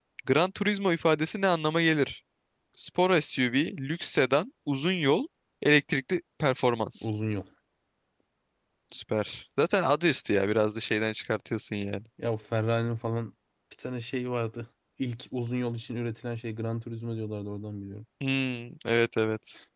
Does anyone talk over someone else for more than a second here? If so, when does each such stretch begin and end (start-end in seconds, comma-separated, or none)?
none